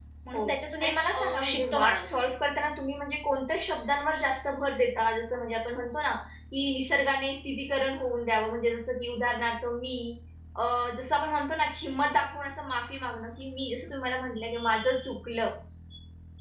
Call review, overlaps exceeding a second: present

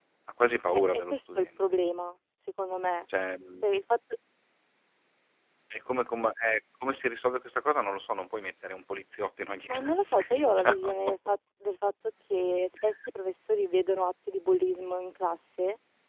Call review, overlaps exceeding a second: present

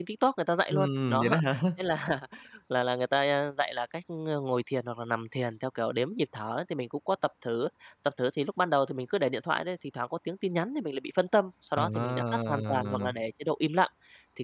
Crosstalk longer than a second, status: present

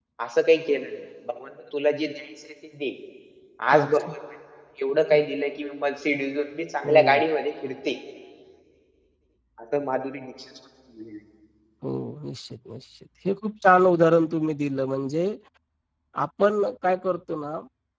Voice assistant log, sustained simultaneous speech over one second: none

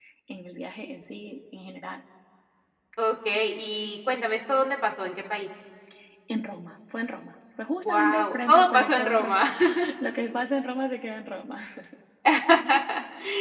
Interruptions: present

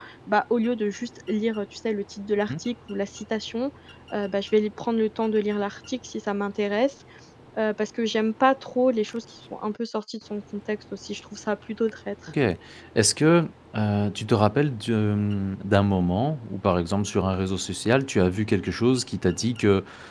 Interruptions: none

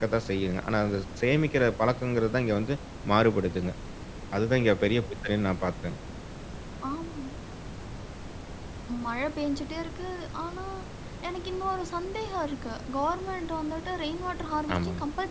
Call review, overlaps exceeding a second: none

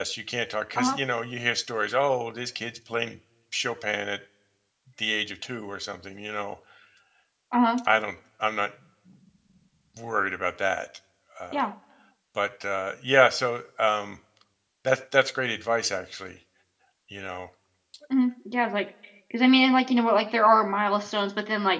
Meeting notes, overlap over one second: none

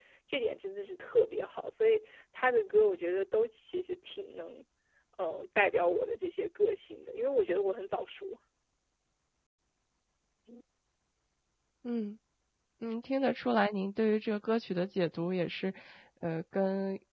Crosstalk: none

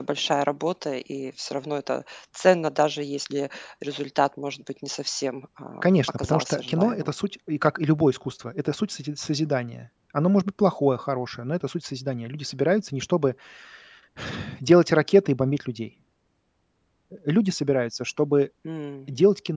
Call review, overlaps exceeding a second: present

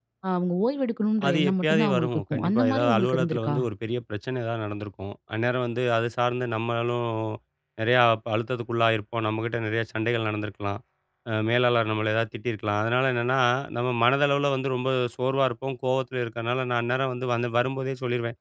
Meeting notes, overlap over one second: present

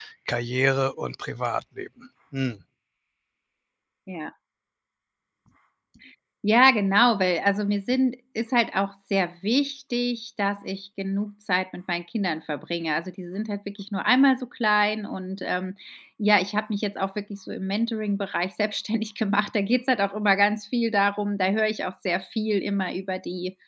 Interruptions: none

